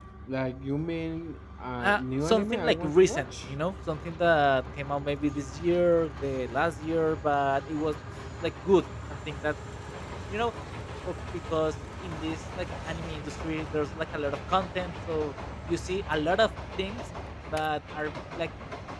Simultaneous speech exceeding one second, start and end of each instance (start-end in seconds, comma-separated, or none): 1.8-3.5